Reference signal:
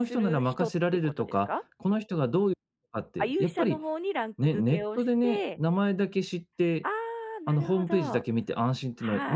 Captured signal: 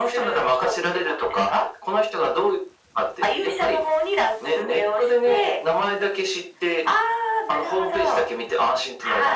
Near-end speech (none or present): none